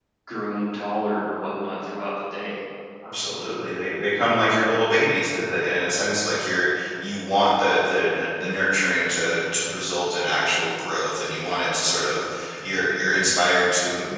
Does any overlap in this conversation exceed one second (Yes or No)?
No